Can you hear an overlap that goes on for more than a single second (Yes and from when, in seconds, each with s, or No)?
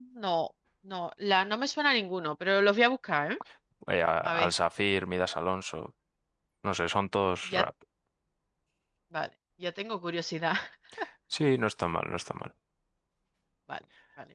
No